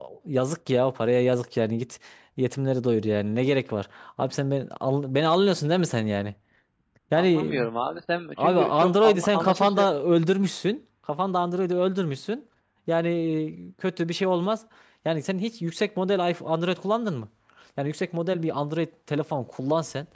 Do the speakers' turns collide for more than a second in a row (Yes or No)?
Yes